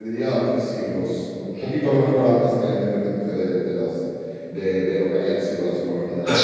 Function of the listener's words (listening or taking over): taking over